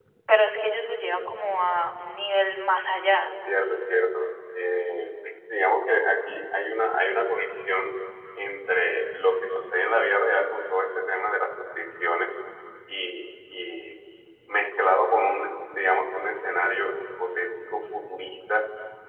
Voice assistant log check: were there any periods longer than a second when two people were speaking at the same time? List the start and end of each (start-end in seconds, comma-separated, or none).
none